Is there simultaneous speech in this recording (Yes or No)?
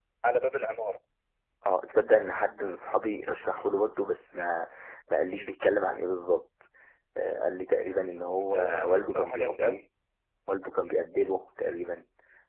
Yes